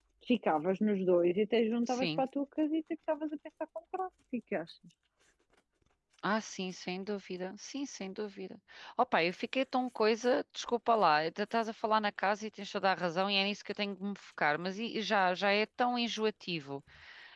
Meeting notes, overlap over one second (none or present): none